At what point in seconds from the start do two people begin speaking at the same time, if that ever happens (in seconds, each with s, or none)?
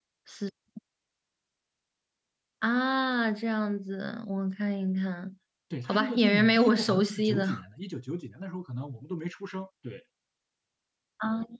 5.9 s